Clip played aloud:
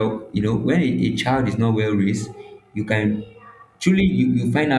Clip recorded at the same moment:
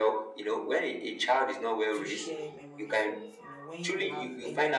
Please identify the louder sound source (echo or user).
echo